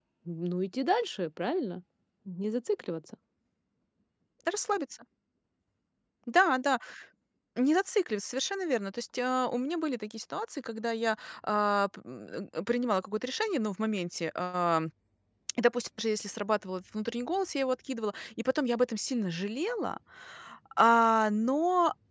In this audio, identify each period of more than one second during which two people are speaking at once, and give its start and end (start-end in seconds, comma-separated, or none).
none